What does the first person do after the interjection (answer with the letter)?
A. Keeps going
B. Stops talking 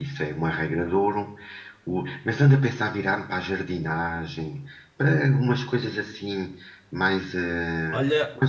B